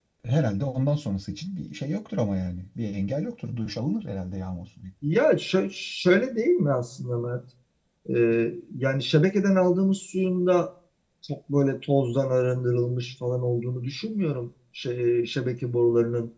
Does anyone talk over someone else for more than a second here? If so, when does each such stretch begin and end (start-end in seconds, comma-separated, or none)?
none